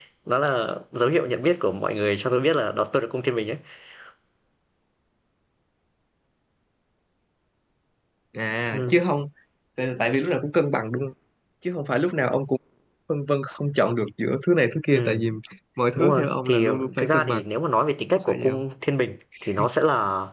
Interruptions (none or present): present